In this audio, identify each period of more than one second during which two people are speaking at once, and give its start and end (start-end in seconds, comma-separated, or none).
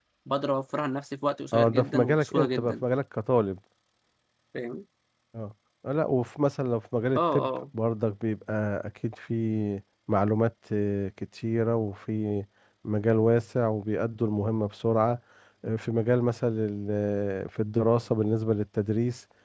1.5-2.8